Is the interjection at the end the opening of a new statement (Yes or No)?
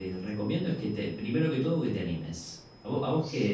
No